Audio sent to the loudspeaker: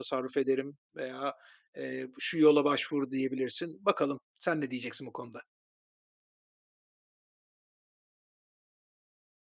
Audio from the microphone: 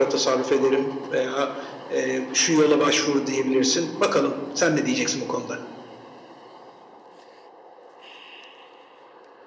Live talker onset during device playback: none

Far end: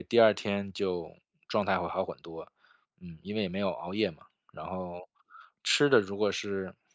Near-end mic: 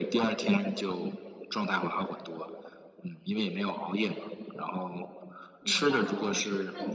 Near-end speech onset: 5.6 s

